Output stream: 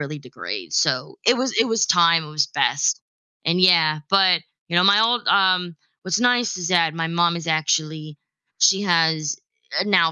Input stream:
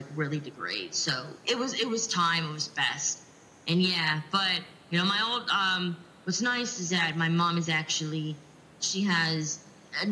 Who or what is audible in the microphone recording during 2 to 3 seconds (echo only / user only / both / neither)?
echo only